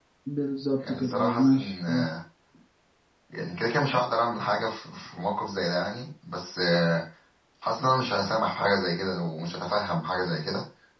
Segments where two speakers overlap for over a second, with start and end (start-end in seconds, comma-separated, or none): 0.9-2.1